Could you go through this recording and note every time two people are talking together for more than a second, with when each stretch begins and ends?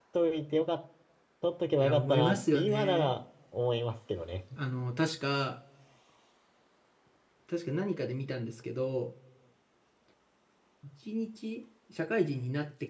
1.8-3.1

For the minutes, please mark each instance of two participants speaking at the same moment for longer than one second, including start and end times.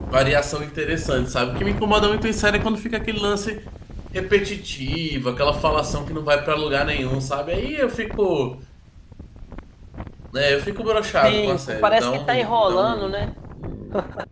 11.2-13.2

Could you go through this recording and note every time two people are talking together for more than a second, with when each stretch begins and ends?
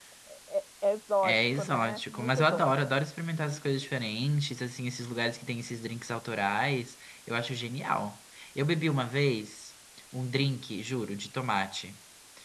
1.3-2.7

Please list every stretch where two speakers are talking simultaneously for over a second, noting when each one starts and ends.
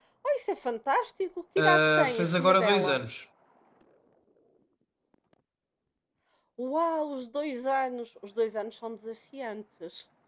1.6-3.0

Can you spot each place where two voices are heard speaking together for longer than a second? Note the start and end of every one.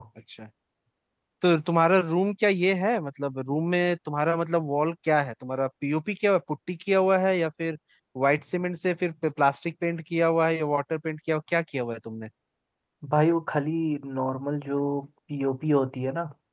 none

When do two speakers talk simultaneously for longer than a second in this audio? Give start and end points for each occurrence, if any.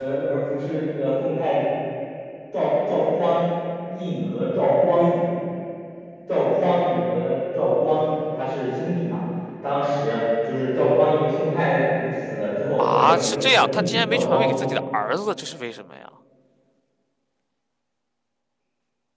12.8-14.6

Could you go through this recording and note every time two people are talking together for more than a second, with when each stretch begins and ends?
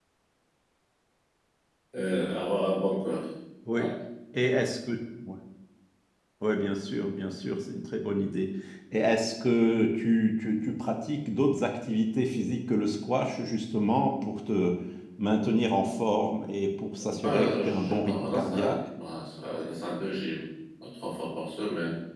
17.1-18.8

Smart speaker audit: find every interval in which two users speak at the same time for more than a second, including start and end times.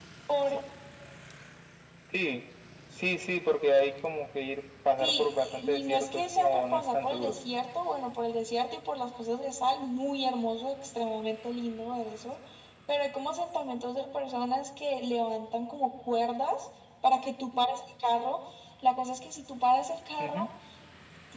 5.0-7.4

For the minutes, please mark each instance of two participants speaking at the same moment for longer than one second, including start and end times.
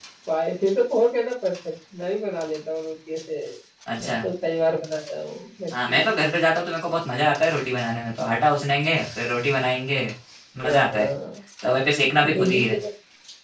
none

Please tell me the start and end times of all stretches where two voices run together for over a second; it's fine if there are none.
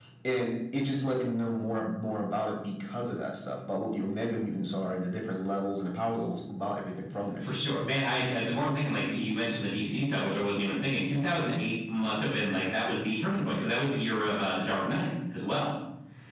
none

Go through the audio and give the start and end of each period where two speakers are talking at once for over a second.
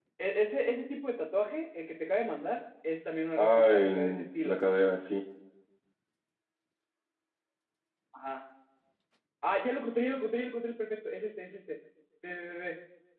3.4-4.6

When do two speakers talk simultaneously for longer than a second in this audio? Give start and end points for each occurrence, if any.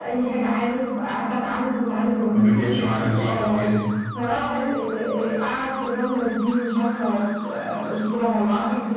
2.3-3.6

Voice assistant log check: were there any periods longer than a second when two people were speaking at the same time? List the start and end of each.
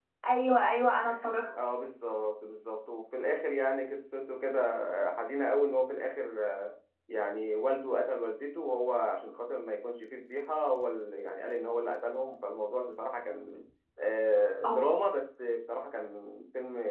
none

